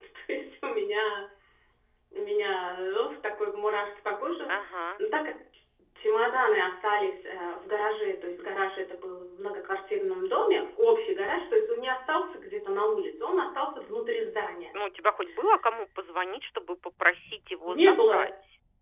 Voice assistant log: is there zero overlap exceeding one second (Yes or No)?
Yes